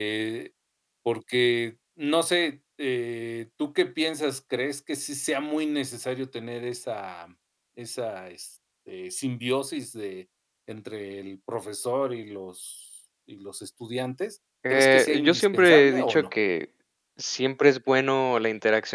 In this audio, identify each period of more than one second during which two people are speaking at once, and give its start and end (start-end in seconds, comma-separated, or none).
14.7-16.3